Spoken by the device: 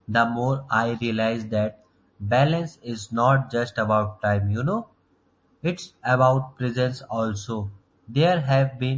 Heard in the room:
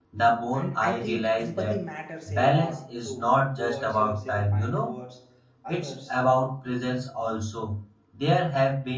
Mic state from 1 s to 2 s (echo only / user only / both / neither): both